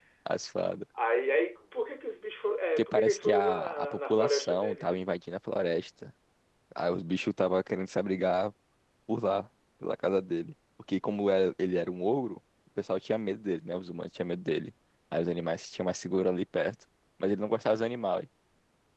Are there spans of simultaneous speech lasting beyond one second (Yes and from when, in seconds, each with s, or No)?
Yes, from 2.8 s